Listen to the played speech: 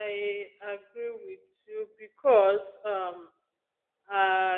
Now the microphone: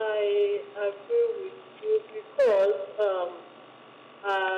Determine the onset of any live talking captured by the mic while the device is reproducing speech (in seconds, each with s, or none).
none